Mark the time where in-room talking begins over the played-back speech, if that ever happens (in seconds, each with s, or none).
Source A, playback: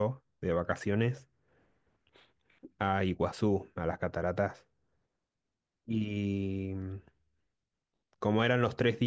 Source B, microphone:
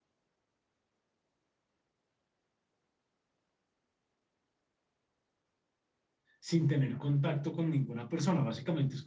6.4 s